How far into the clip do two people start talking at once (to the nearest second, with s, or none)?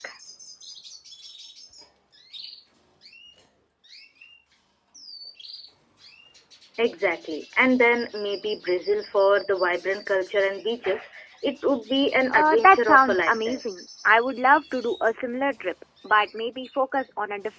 12 s